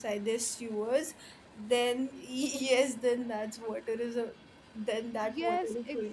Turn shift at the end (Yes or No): Yes